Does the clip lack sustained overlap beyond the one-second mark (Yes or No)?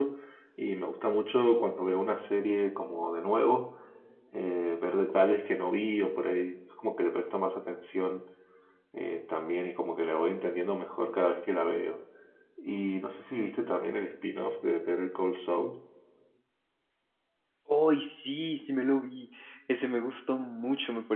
Yes